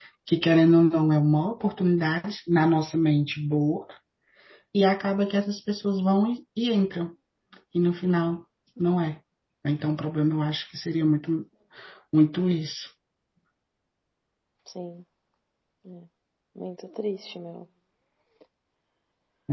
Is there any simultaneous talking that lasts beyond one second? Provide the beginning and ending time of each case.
none

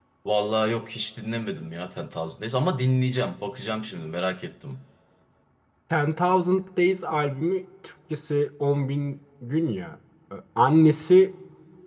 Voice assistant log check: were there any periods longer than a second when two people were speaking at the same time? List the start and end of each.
none

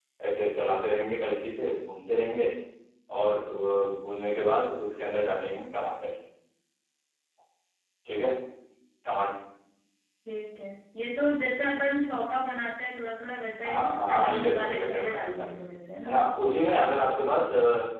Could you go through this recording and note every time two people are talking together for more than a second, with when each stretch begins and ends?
13.6-15.5

